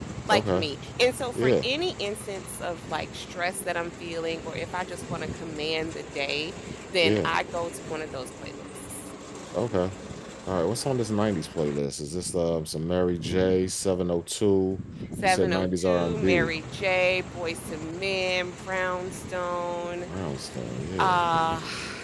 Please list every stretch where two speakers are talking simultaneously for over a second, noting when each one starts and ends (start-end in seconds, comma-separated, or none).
15.2-16.6